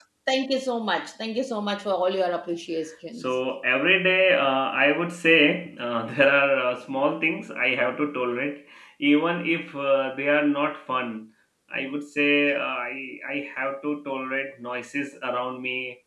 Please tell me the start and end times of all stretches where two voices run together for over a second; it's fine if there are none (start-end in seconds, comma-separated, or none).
none